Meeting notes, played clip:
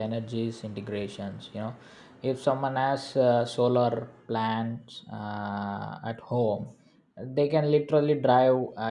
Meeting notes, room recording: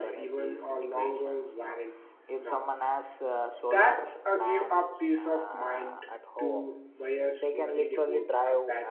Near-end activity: present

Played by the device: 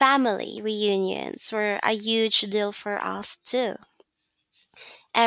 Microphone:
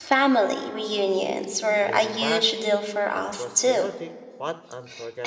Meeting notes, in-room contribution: present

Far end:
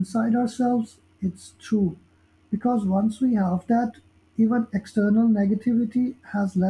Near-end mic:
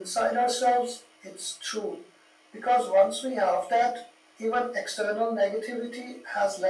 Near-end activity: none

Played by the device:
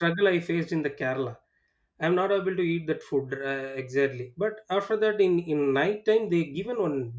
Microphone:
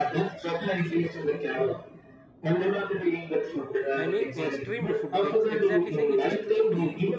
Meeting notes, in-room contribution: present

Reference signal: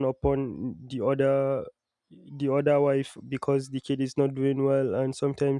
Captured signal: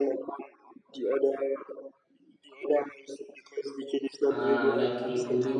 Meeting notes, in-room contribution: present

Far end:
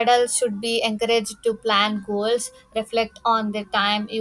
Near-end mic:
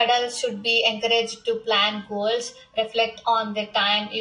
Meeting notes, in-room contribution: none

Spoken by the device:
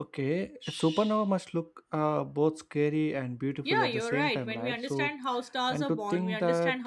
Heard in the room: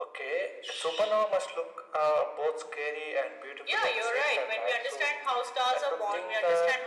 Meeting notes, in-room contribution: none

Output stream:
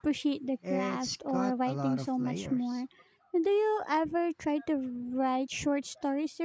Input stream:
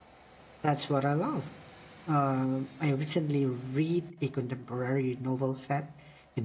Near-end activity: present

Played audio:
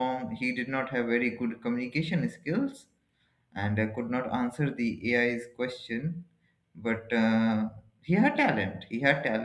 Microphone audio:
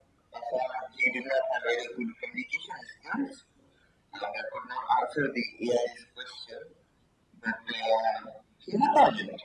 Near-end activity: none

